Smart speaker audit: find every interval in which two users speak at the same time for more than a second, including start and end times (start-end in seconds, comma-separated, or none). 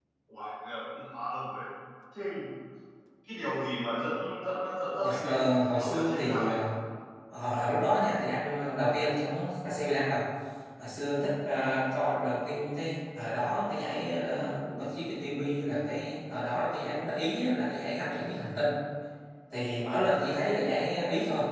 5.0-6.6